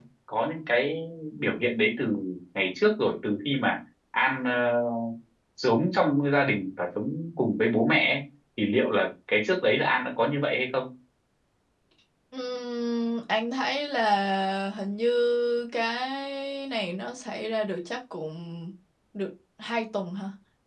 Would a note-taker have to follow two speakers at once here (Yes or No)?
No